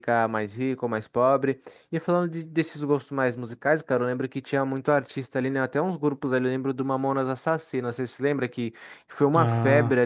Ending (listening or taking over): listening